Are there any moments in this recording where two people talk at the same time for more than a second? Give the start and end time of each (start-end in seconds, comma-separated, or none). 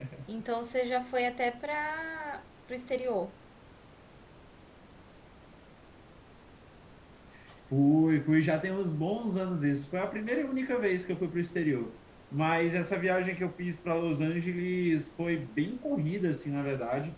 none